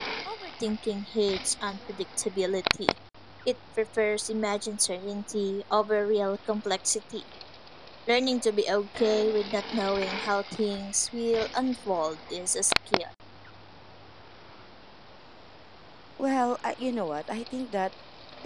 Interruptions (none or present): none